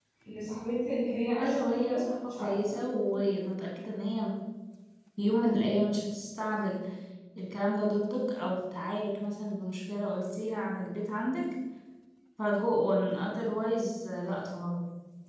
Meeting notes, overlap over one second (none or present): present